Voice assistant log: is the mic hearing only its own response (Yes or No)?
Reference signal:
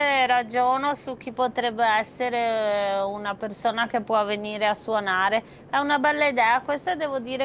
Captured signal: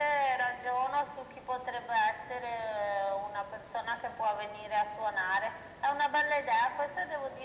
Yes